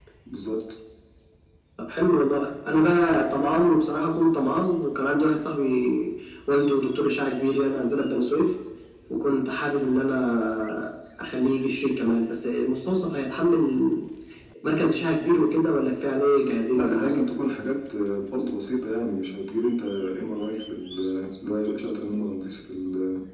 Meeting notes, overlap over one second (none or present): none